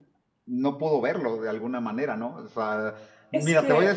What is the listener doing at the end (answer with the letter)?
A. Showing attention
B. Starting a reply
A